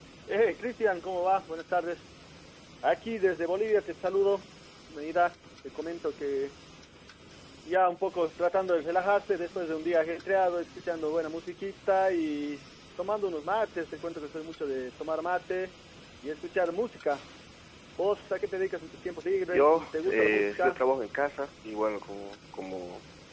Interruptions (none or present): present